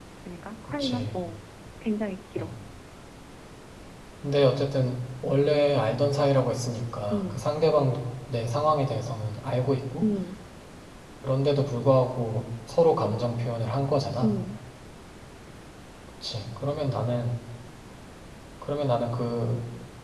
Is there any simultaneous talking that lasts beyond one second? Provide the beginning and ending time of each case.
none

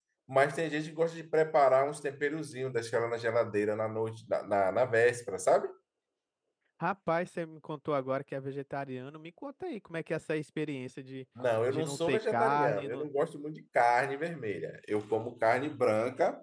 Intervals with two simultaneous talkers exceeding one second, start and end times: 11.7-13.1

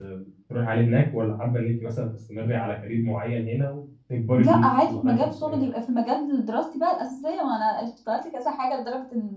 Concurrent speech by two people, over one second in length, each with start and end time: 4.4-5.6

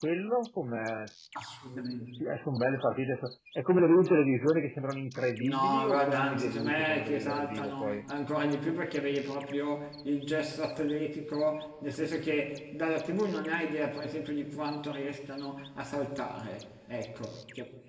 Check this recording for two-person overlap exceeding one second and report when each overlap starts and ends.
5.4-8.0

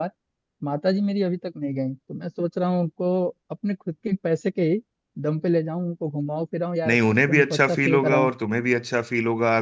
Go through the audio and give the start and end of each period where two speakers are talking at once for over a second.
6.9-8.3

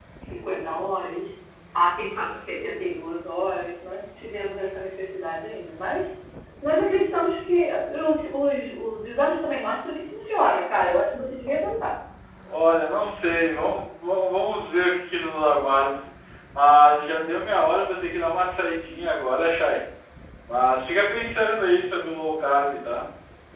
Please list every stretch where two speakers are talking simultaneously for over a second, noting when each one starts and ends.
none

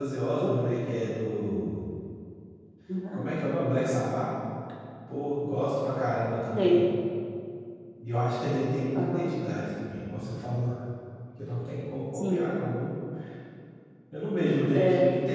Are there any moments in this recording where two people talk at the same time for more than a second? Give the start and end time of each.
none

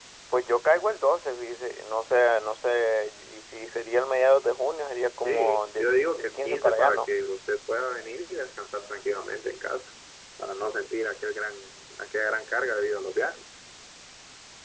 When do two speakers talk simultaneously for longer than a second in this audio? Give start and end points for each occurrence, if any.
5.2-7.1

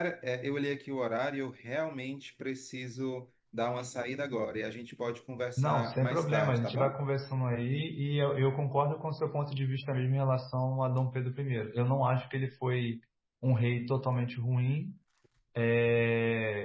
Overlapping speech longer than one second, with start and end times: 5.6-6.9

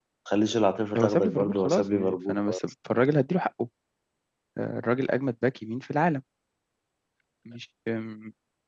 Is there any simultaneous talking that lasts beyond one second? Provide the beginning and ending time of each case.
1.0-2.6

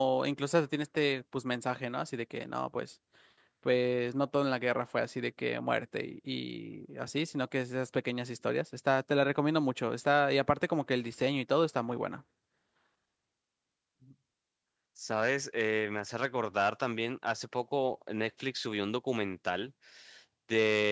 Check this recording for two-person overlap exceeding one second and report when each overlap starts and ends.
none

